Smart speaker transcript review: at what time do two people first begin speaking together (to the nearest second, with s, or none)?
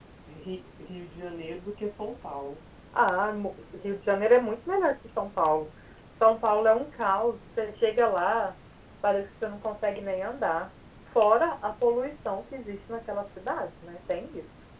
none